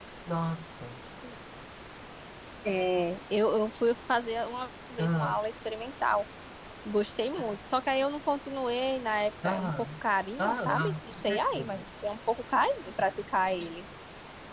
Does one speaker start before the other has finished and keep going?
Yes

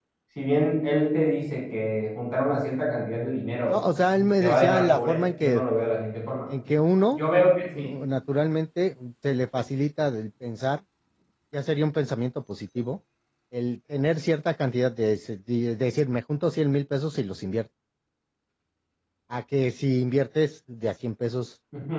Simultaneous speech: Yes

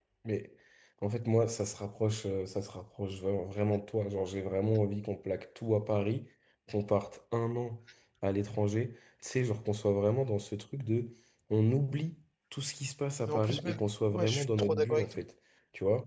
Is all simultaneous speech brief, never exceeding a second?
No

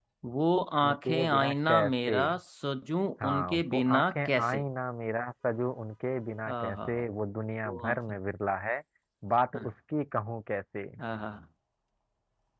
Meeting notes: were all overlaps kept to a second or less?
No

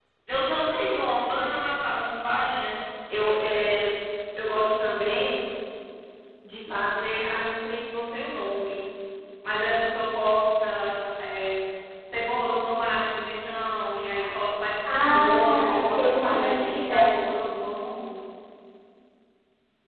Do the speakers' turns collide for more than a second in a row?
Yes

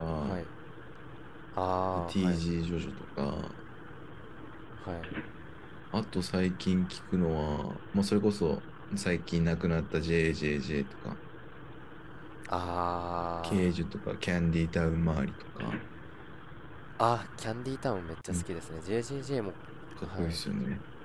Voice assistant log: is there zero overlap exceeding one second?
Yes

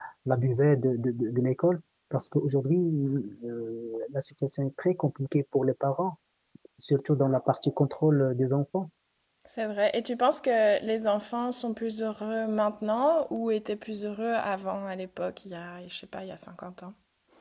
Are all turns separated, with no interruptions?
Yes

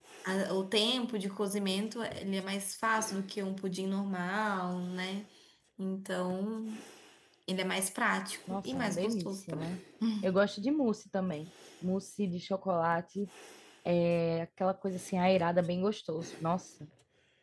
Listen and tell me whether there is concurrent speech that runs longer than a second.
Yes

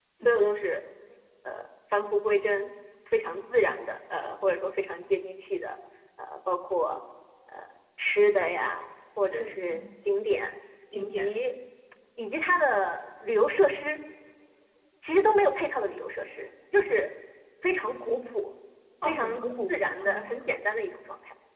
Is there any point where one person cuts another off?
Yes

